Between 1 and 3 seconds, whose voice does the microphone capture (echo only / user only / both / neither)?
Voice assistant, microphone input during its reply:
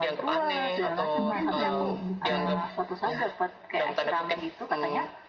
both